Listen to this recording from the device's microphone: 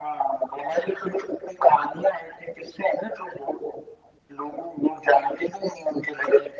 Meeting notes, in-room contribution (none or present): none